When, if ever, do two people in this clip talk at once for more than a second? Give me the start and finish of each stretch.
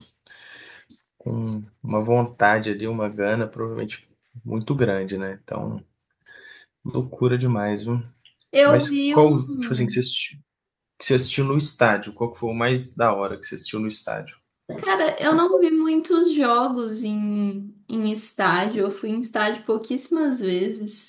8.7-10.0

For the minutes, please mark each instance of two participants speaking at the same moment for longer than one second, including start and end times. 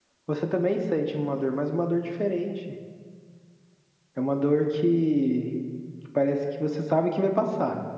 none

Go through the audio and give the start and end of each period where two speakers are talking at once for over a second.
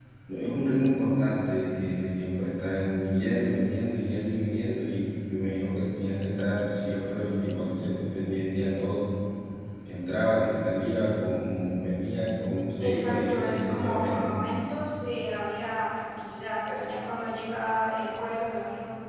12.8-14.3

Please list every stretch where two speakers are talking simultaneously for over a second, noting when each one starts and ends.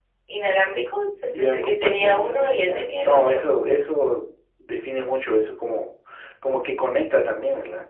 1.3-3.4

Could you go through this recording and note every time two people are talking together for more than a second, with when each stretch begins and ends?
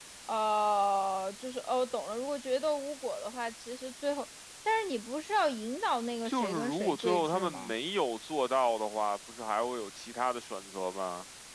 6.2-7.7

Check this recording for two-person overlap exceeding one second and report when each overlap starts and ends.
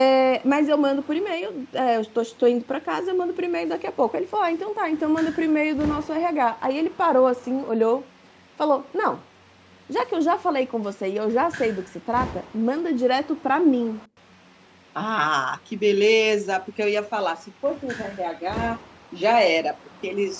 none

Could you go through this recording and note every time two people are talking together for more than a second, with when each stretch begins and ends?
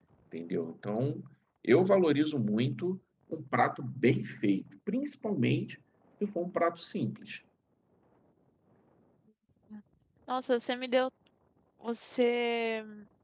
none

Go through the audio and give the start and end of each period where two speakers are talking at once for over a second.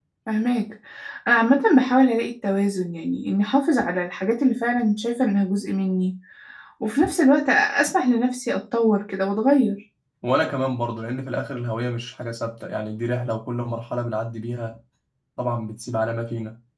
none

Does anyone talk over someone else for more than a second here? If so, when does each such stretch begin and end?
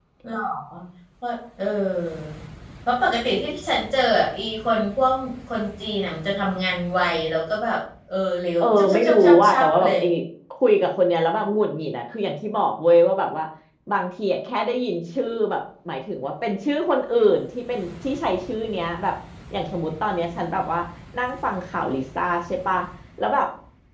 8.6-9.9

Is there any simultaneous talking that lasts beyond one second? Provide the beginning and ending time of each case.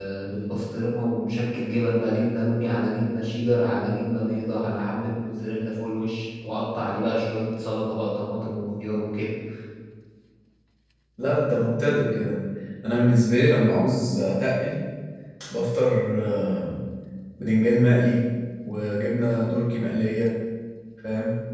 none

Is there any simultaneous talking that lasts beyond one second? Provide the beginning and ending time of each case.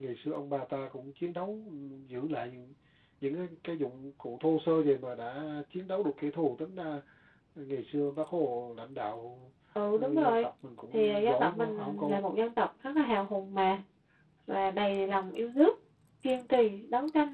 10.9-12.2

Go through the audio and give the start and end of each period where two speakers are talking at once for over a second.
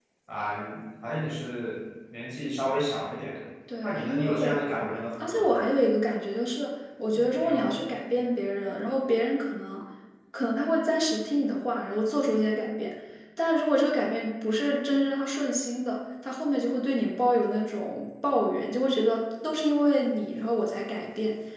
3.8-5.5

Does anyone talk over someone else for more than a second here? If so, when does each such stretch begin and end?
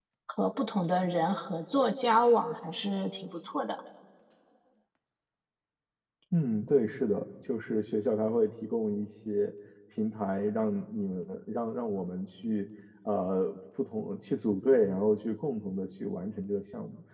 none

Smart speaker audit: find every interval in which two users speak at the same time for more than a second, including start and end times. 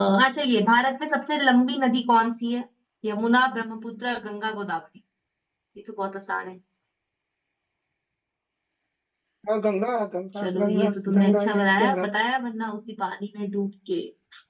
10.4-12.0

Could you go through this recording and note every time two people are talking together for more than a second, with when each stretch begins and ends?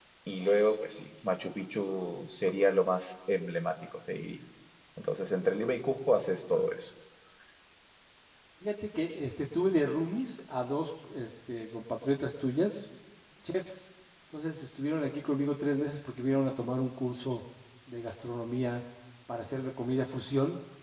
none

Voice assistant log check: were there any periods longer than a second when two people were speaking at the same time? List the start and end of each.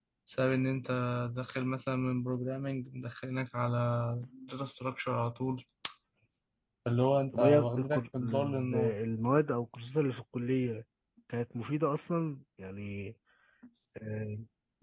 7.3-8.9

